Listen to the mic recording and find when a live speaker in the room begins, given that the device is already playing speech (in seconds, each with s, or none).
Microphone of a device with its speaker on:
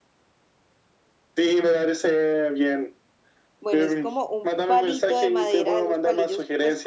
3.6 s